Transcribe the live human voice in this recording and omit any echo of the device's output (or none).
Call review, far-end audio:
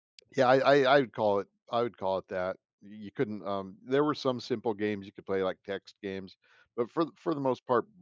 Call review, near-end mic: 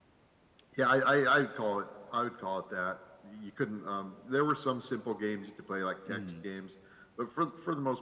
mhm.